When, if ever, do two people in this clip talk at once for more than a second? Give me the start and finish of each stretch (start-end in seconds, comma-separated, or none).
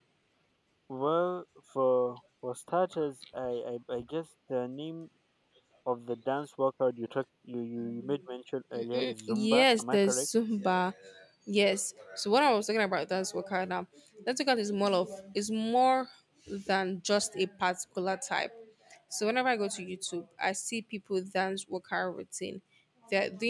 8.7-10.3